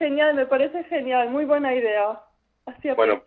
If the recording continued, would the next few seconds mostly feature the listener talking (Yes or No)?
Yes